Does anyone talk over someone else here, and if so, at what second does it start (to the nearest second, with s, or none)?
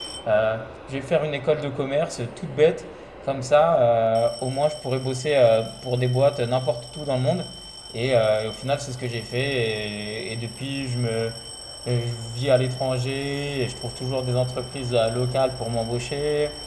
none